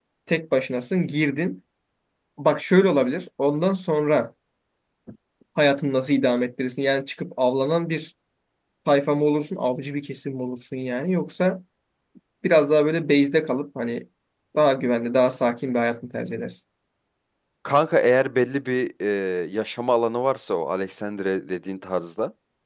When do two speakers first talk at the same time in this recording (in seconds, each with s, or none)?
none